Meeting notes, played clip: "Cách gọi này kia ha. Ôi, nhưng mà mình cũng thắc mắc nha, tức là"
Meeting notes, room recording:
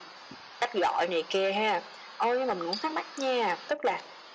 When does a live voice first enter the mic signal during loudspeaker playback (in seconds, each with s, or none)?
none